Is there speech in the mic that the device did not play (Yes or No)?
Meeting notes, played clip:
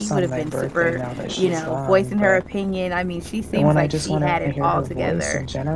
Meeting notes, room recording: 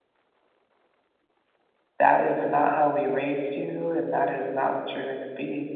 Yes